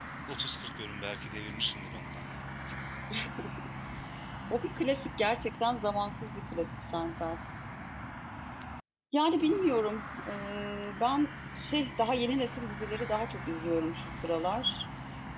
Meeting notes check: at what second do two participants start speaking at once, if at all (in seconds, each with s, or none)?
none